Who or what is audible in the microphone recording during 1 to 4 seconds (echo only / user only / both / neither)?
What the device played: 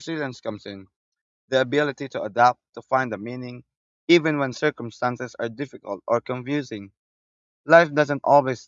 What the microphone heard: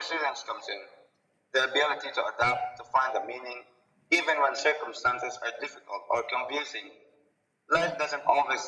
echo only